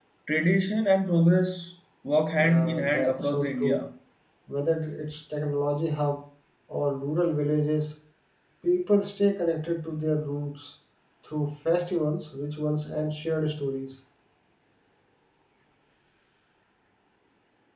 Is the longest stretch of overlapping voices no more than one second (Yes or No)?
No